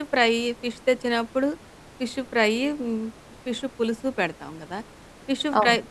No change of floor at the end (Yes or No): Yes